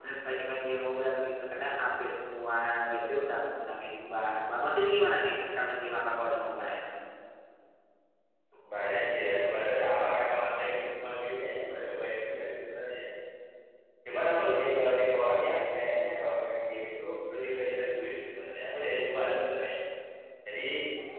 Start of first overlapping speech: none

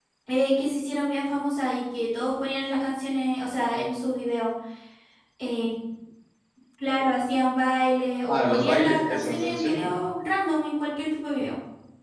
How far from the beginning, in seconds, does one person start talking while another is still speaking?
8.3 s

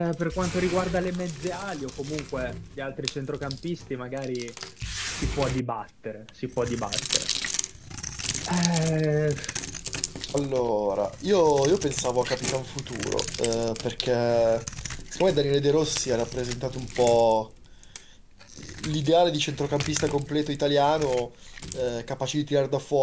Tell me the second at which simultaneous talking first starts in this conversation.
none

